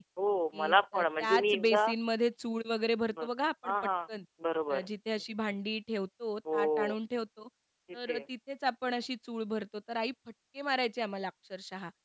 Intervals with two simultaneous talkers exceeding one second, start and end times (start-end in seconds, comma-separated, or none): 0.5-1.9